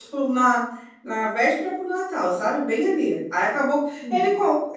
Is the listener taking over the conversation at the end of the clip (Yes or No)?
No